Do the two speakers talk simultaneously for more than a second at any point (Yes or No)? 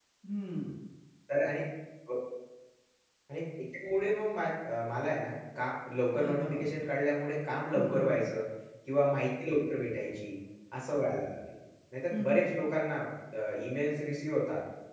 No